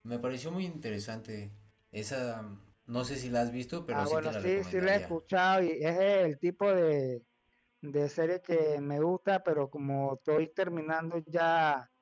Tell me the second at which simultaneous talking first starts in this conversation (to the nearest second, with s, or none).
4 s